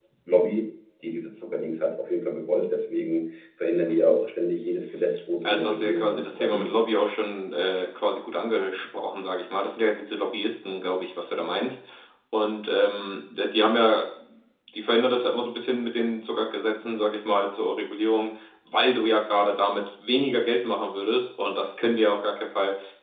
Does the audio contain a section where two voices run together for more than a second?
Yes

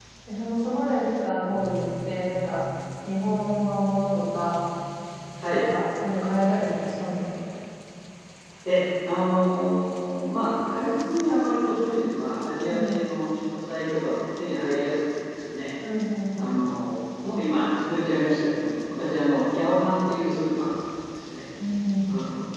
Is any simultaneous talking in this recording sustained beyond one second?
No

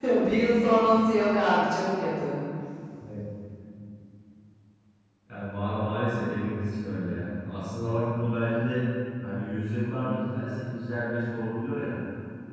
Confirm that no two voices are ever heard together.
Yes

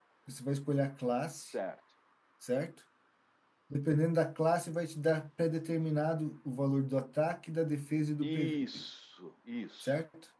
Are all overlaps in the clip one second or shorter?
Yes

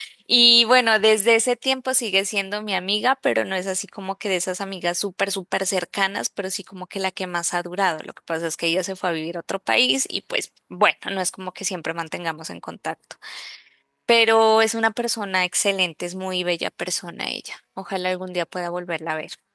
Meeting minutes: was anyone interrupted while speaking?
No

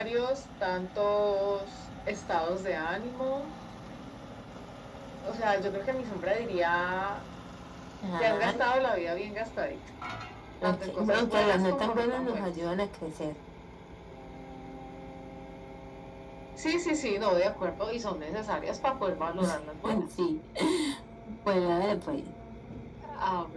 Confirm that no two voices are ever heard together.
No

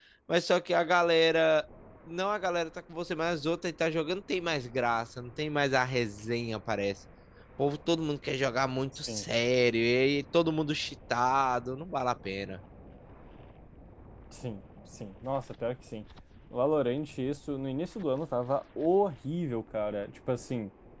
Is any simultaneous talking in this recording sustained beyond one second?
No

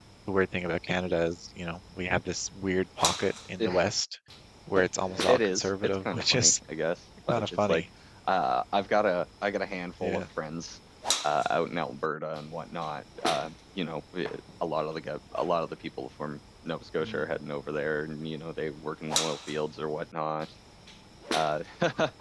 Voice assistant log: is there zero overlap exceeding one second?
No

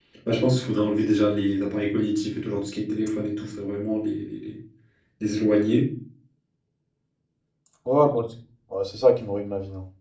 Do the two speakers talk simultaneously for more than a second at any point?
No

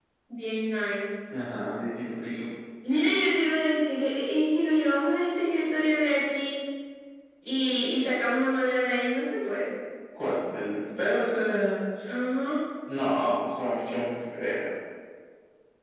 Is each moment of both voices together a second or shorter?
Yes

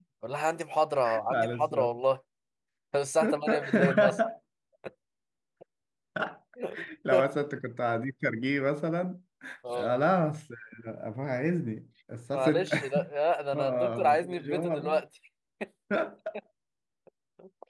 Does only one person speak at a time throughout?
No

